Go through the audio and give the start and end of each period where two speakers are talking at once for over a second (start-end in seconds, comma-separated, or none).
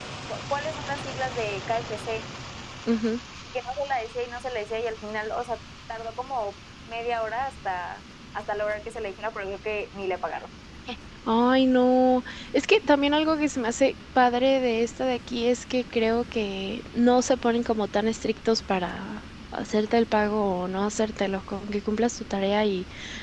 none